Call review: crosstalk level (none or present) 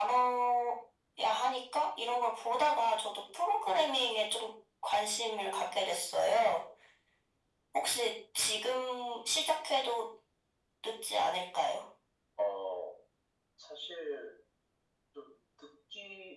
none